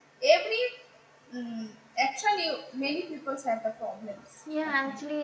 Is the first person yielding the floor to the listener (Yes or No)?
Yes